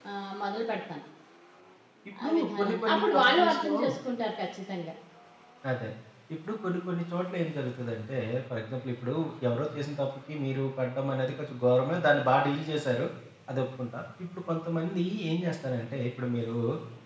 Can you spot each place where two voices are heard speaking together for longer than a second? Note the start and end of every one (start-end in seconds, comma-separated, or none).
2.2-3.7